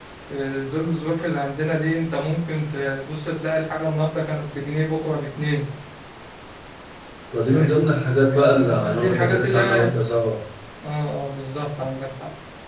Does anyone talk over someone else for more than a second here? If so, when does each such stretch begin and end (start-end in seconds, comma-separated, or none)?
8.3-9.8